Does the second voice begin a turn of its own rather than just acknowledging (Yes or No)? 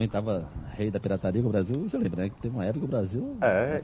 Yes